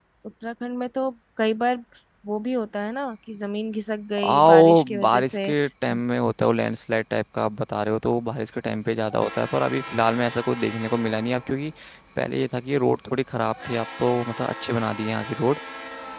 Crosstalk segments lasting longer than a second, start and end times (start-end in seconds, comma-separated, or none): 4.2-5.5